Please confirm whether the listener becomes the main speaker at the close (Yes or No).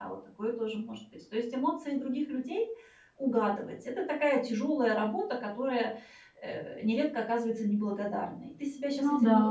No